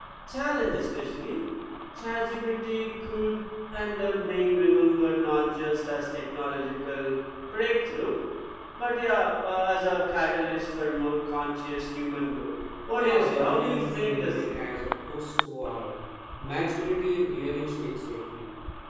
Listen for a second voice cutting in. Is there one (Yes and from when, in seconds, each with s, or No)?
Yes, from 12.9 s